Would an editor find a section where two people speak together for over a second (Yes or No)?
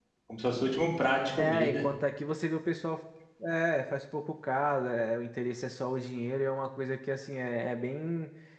No